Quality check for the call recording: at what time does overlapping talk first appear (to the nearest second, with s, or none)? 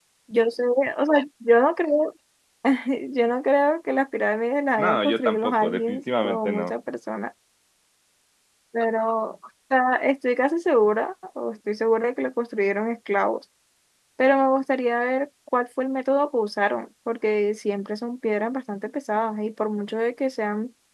5 s